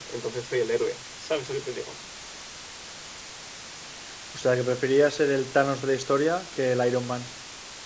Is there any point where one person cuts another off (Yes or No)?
No